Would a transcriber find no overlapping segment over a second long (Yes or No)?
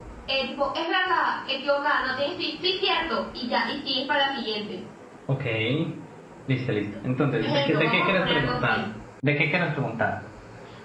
No